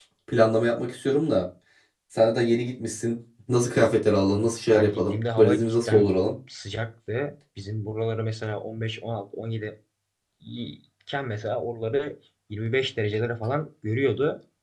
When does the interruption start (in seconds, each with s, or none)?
4.7 s